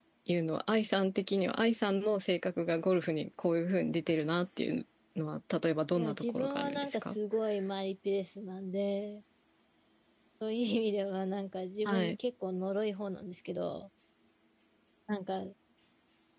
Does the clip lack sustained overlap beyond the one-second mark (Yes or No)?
No